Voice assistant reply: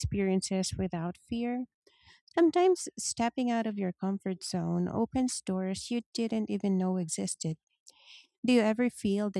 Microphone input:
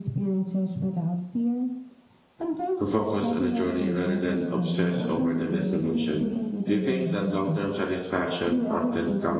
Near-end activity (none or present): present